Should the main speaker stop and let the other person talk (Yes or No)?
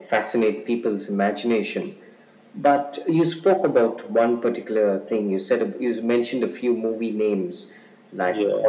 No